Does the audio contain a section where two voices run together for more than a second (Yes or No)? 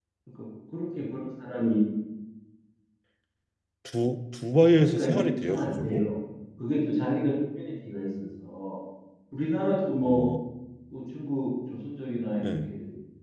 Yes